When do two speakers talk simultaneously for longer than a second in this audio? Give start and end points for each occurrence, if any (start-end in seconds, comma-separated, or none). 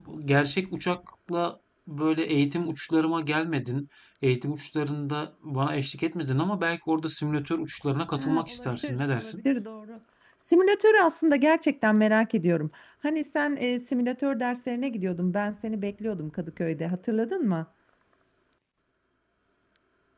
8.2-9.4